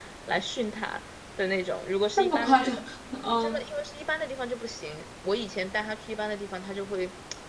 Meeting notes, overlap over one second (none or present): none